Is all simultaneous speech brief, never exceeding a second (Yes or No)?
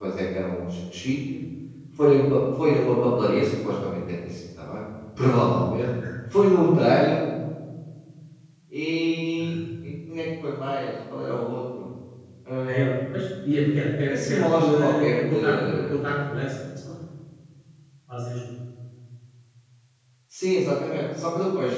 No